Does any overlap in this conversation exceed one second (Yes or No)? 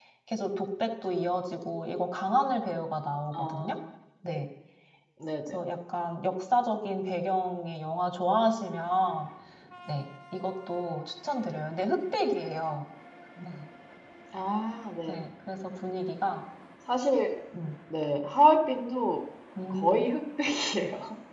No